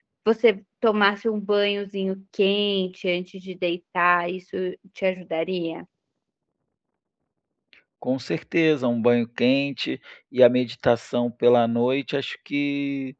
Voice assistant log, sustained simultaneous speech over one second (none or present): none